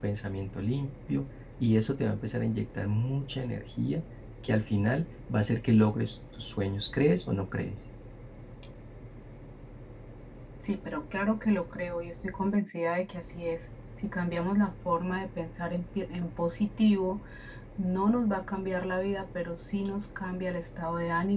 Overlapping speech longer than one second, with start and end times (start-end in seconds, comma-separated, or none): none